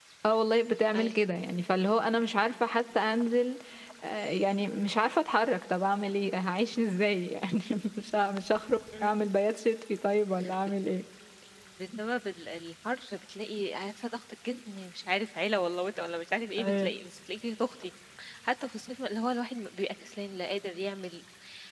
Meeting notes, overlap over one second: none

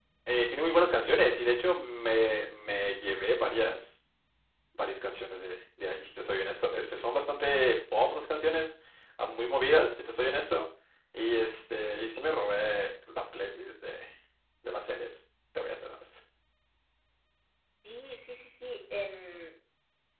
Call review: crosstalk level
none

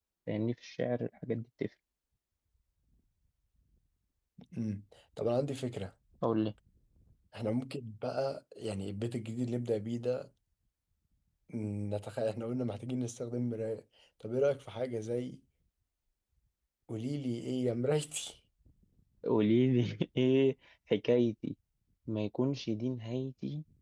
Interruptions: none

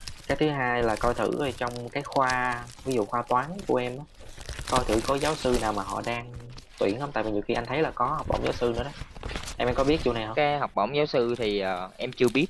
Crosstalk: none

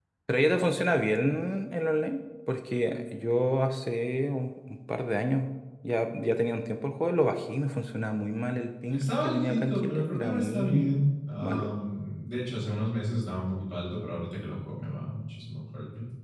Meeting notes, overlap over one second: present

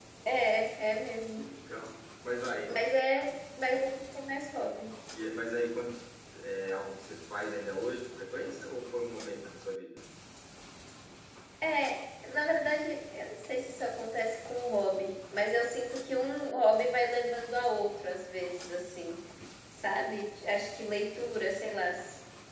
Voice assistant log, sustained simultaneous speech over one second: none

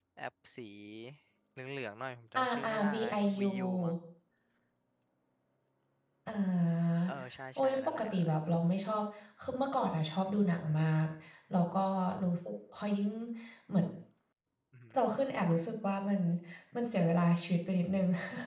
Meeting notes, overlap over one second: present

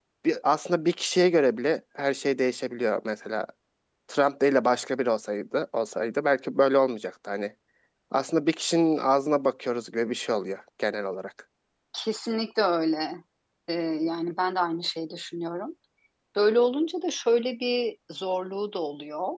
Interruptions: none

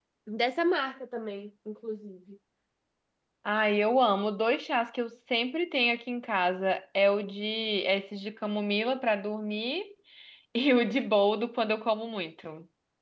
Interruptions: none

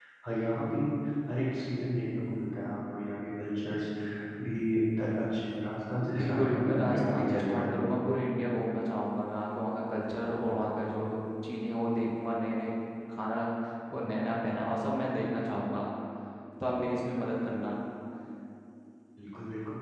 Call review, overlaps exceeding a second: present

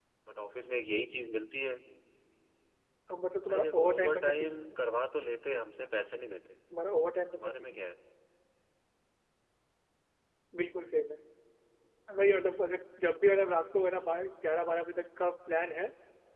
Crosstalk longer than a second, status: present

